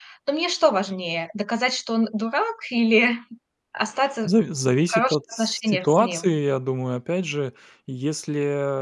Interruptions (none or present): present